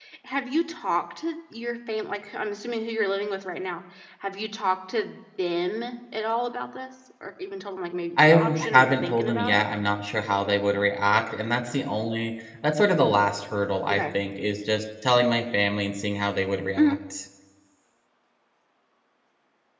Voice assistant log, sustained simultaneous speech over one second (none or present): present